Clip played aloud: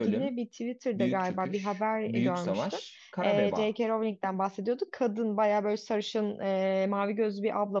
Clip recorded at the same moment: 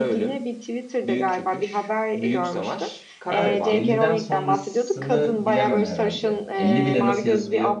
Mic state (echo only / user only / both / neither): both